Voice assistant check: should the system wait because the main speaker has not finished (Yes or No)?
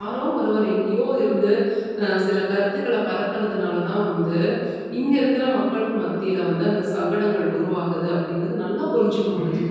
No